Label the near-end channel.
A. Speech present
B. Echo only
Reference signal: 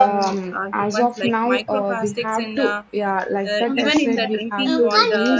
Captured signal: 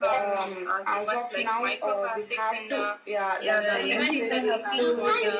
A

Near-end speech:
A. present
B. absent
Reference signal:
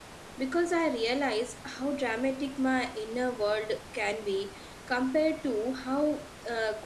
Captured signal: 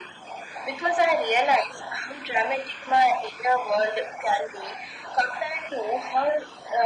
B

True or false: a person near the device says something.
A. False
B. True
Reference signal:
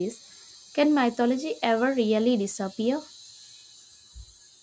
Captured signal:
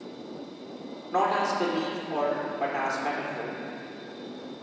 B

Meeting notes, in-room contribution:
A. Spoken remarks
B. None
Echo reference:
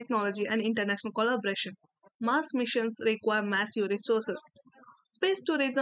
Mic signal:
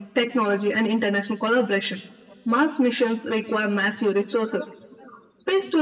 B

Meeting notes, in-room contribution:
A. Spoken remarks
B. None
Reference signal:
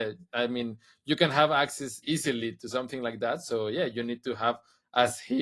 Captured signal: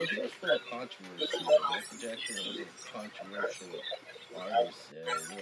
A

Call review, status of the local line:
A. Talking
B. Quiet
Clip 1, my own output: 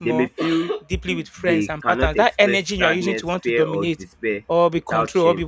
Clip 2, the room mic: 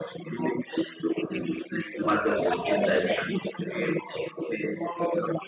A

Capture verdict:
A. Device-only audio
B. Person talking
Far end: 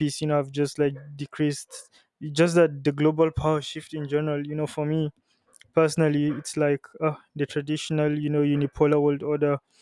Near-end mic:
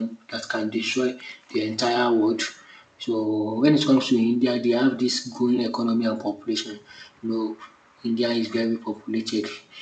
B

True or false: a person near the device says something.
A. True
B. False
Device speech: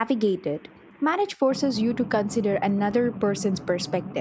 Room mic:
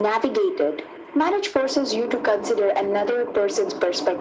B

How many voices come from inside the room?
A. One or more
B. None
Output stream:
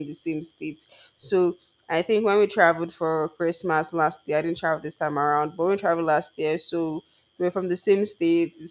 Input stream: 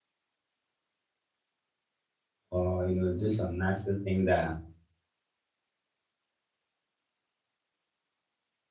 A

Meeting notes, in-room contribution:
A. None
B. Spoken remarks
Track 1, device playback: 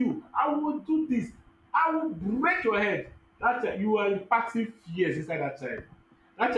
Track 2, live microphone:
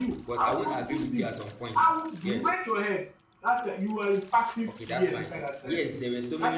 B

